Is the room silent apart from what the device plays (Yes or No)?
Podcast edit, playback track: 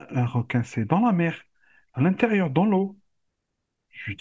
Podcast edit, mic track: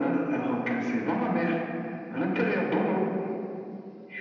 Yes